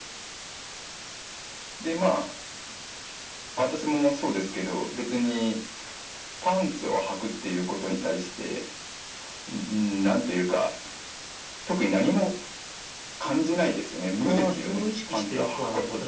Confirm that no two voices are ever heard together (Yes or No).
No